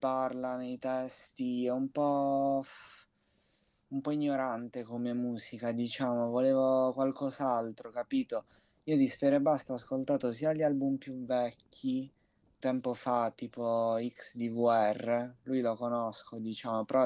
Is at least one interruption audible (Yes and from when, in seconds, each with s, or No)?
No